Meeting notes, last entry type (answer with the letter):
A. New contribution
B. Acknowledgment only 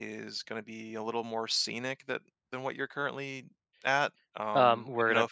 A